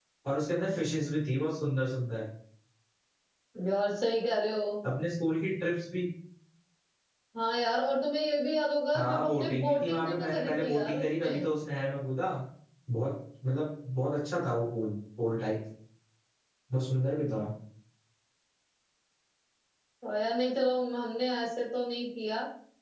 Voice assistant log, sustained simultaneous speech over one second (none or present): present